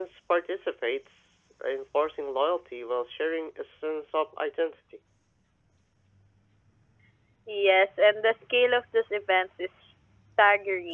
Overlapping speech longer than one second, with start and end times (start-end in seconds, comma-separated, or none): none